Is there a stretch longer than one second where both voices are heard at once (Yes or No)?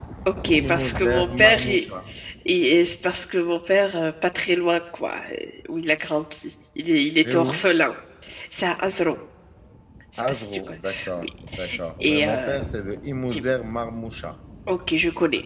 Yes